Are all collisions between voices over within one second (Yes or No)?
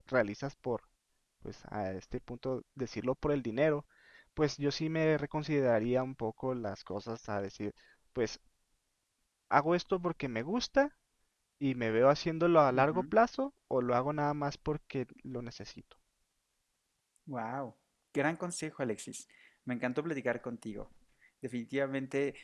Yes